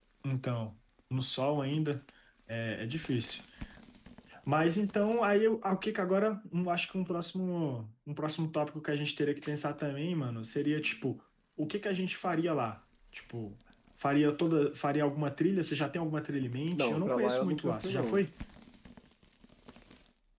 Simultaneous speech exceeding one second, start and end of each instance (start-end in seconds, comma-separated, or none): 16.8-18.2